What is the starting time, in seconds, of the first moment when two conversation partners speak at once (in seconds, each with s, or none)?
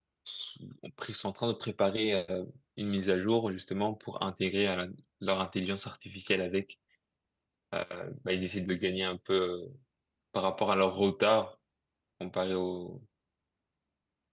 none